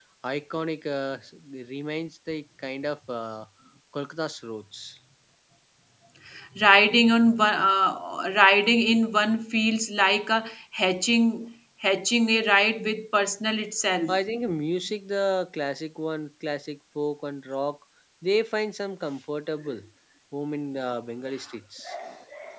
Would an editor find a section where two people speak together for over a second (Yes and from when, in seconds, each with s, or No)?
No